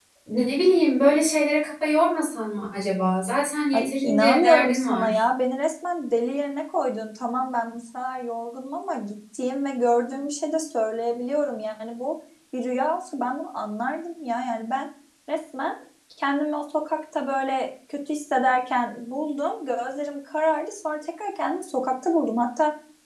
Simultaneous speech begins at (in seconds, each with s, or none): 3.7 s